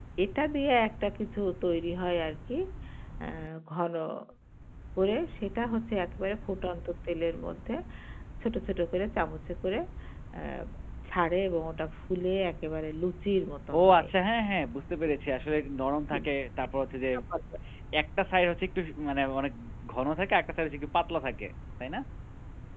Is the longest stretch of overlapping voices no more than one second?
Yes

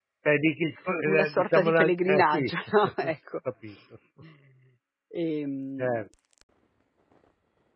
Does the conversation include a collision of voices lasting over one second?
Yes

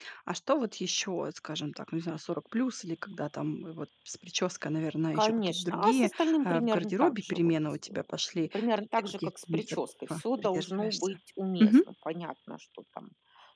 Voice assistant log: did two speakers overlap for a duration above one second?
Yes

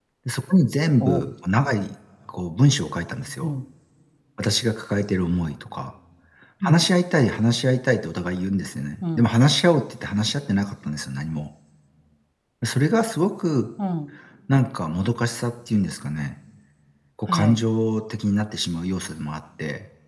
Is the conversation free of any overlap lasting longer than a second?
Yes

